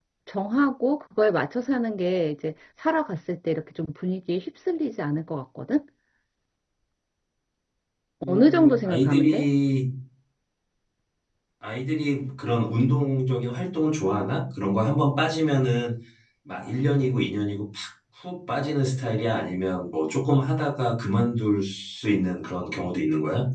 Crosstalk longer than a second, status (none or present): present